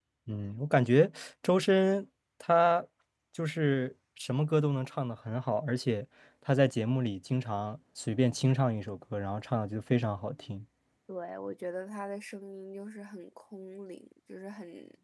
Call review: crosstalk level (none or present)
none